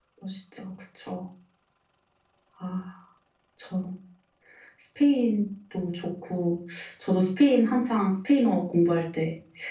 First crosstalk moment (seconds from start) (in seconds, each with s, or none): none